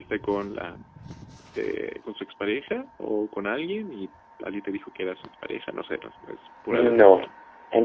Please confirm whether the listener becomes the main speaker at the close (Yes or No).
Yes